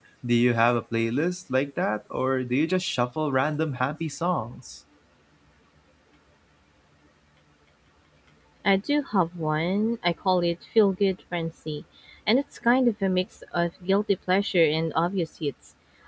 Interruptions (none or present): none